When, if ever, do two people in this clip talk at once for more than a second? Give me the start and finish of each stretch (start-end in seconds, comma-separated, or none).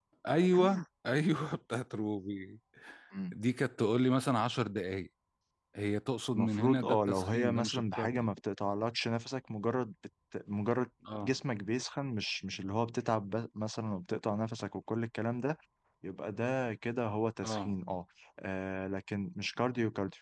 6.3-8.3